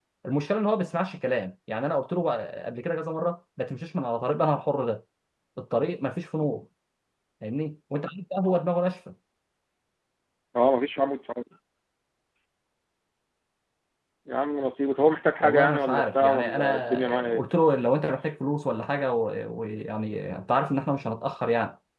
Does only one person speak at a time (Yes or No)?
No